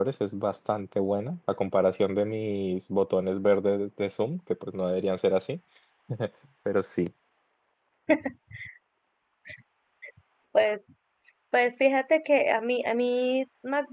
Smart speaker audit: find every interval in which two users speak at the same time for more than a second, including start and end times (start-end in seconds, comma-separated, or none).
none